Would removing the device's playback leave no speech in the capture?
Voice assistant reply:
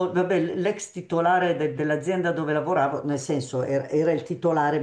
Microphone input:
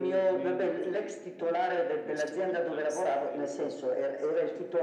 No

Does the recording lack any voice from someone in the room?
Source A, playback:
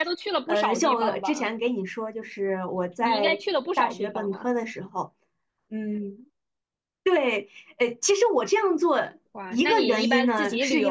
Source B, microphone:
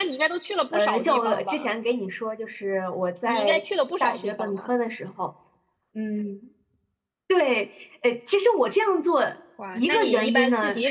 Yes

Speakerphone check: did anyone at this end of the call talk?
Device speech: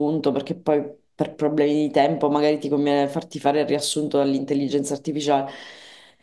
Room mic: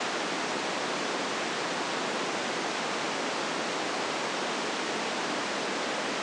No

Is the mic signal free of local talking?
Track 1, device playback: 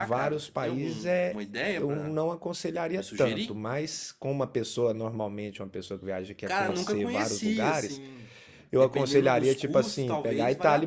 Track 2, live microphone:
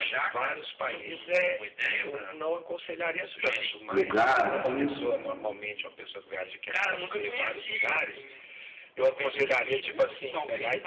No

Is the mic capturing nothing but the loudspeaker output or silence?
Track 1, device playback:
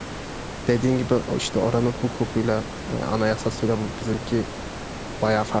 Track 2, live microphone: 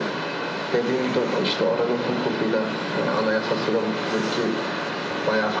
Yes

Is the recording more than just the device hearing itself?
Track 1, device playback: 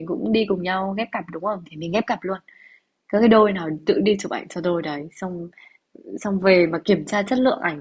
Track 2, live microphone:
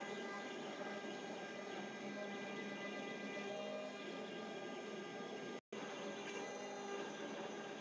No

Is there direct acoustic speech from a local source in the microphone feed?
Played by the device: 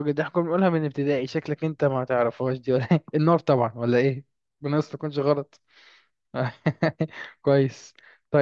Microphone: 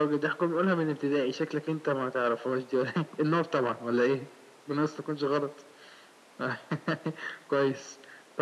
No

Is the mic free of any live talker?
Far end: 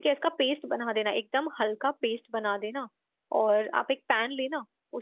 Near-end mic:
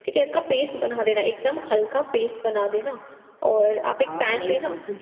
No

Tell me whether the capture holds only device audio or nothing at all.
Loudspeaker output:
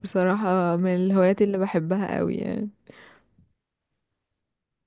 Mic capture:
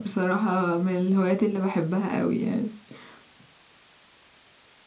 Yes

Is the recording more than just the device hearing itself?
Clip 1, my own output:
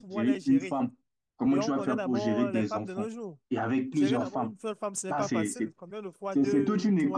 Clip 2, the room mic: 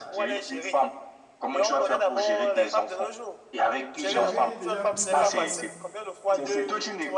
Yes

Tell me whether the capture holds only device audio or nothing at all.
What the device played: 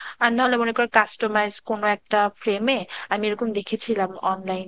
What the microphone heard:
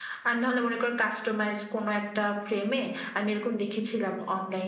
Yes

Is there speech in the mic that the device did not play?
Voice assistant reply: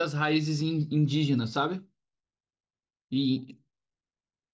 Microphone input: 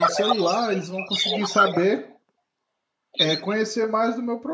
Yes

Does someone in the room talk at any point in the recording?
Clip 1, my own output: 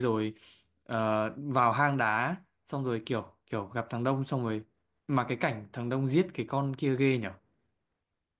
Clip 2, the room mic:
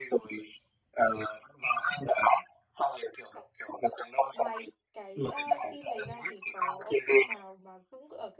Yes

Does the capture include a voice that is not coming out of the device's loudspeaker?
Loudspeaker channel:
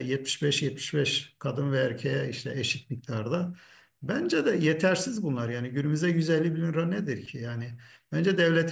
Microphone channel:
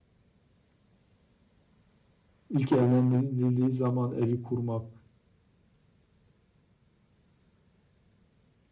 Yes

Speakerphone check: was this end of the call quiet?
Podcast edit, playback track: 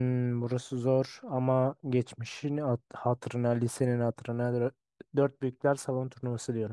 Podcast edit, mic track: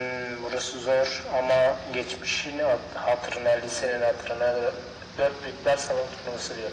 Yes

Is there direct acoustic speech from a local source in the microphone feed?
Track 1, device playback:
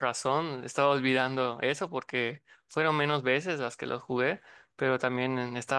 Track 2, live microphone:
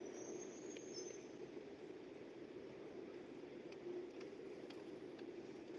No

